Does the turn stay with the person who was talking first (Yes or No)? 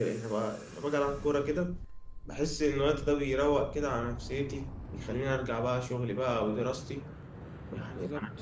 Yes